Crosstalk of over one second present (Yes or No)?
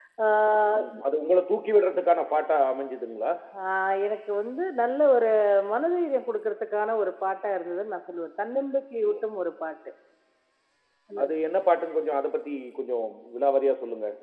No